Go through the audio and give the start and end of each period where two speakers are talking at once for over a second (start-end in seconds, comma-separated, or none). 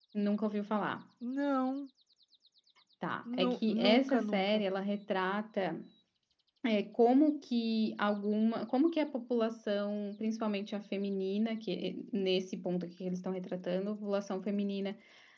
3.4-4.6